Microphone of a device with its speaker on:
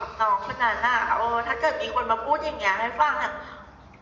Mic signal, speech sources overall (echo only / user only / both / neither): echo only